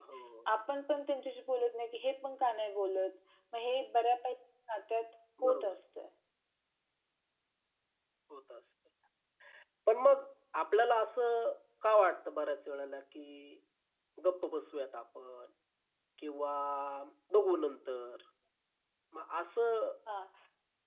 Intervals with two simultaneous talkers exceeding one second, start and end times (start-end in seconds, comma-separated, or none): none